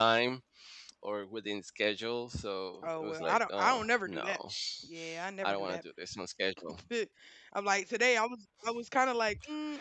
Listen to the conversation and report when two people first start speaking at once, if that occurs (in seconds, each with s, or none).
2.8 s